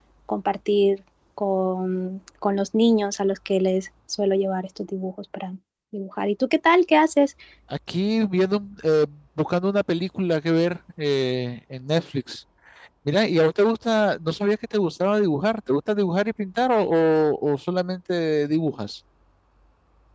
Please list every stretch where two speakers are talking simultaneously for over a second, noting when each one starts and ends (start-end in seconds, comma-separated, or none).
none